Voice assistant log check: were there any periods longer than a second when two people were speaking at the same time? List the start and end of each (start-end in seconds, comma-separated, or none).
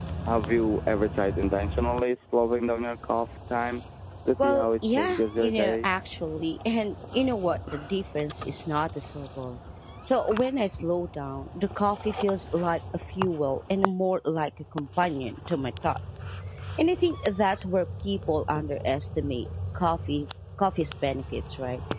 4.4-5.9